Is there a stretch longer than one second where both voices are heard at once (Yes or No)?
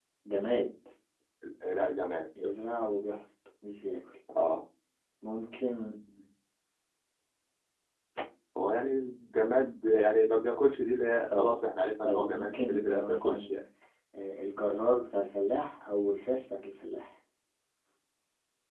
Yes